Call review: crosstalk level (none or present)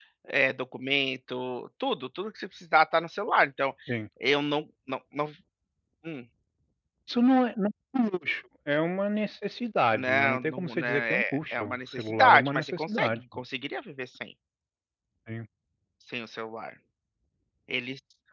present